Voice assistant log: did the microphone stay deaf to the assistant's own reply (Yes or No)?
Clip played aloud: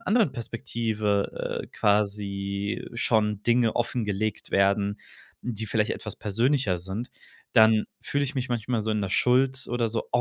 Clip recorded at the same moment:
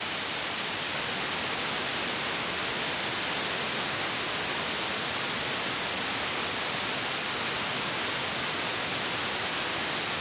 Yes